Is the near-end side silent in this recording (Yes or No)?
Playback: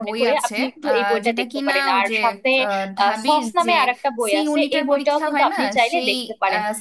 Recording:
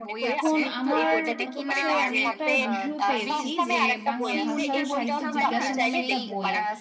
No